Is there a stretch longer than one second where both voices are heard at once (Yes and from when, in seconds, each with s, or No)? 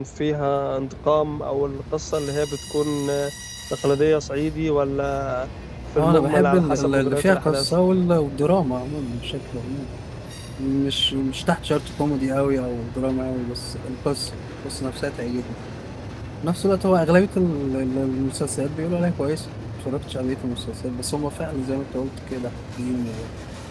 Yes, from 6.0 s